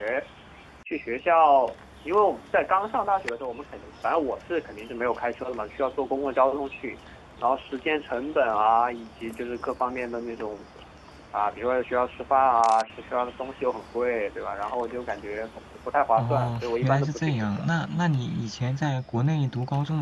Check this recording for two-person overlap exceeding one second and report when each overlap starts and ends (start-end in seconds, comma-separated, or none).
16.2-17.6